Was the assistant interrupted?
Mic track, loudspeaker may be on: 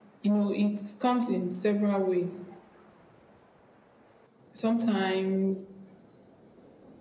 No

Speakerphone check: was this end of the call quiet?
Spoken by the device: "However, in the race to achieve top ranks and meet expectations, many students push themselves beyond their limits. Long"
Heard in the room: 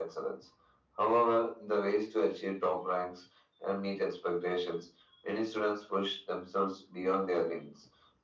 Yes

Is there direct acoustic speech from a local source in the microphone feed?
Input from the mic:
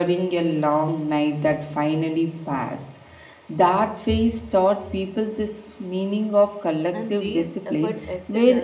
Yes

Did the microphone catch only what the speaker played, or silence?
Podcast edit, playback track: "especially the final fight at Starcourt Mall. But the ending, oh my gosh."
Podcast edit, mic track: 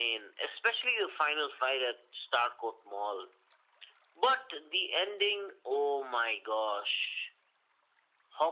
Yes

